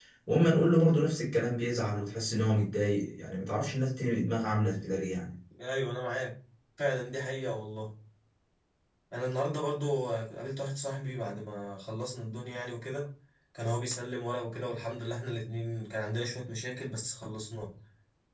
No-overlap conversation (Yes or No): Yes